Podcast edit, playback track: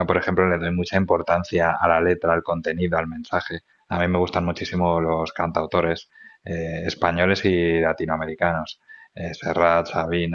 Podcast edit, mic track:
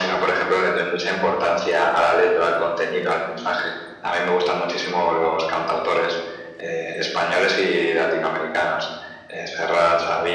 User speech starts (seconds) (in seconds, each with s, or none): none